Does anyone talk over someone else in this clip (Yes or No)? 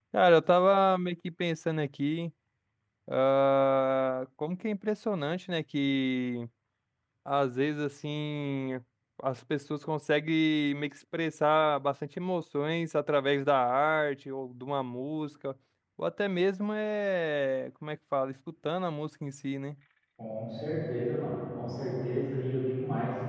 No